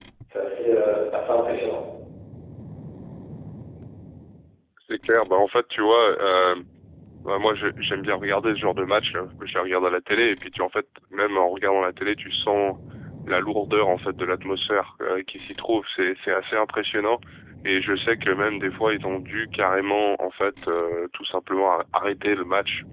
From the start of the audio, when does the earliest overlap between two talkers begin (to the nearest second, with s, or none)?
none